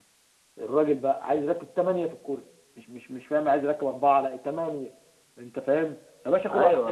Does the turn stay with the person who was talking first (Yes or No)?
Yes